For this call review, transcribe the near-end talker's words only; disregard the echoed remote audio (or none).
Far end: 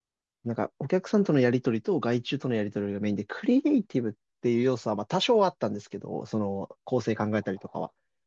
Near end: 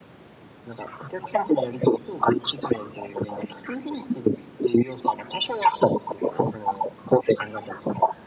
none